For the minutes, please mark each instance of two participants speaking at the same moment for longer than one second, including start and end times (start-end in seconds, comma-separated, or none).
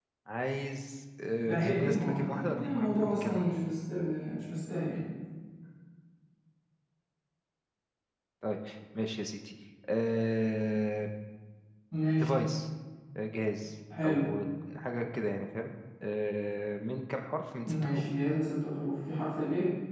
1.4-3.5